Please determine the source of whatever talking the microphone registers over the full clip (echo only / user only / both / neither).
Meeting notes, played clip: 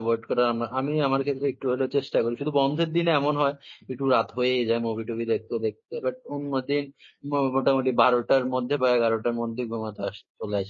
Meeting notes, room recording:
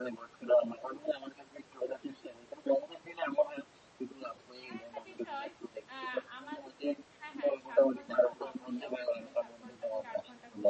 both